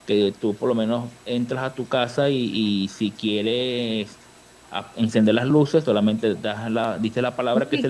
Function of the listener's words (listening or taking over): taking over